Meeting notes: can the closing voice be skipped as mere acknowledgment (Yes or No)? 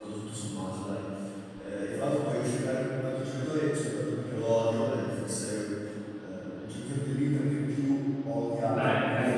No